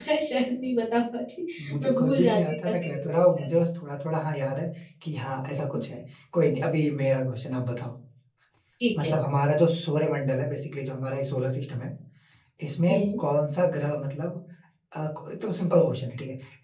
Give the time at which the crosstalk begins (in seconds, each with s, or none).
1.8 s